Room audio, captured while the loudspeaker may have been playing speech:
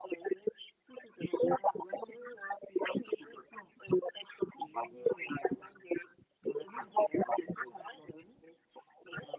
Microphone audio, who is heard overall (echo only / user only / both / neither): echo only